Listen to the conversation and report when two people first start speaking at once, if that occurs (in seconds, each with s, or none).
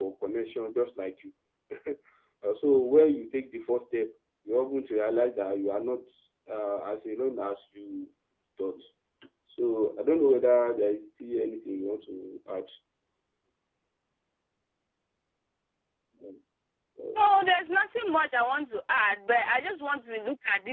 none